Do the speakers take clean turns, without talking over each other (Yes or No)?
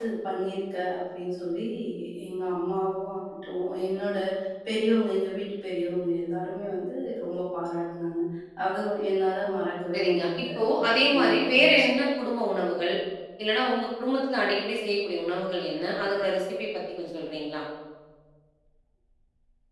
No